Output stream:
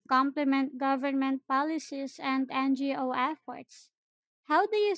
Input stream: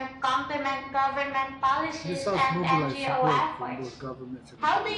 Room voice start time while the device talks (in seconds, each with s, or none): 2.0 s